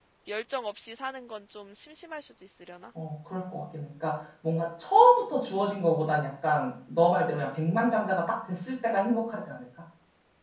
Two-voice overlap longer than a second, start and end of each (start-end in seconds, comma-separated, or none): none